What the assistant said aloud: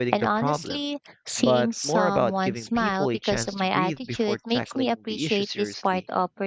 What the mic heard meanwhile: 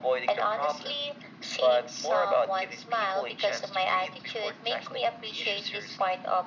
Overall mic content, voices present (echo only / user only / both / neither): echo only